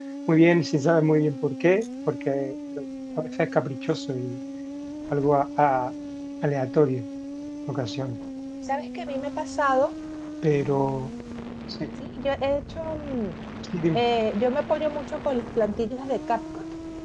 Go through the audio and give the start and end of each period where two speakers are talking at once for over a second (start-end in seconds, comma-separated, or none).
none